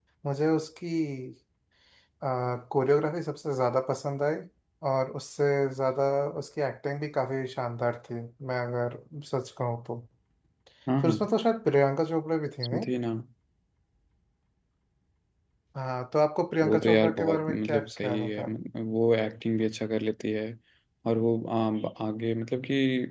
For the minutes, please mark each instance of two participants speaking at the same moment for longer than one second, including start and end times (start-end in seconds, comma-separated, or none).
16.6-18.5